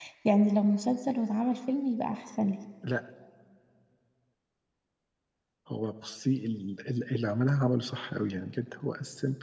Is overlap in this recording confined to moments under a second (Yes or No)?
Yes